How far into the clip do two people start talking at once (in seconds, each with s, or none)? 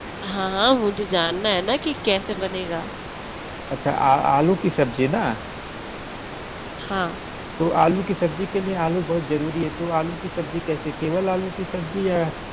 none